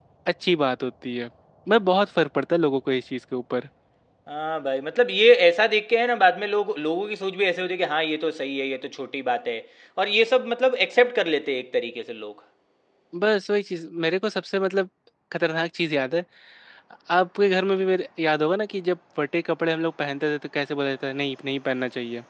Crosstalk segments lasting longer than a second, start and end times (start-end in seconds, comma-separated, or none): none